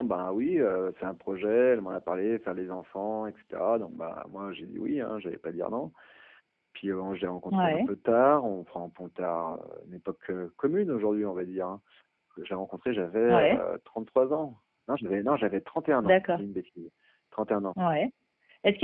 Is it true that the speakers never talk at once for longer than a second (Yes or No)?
Yes